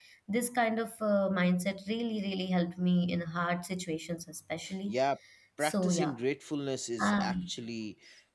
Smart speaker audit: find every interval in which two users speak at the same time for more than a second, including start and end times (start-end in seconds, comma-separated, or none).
none